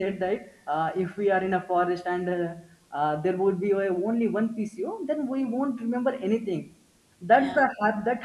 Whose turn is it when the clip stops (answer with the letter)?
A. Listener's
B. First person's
B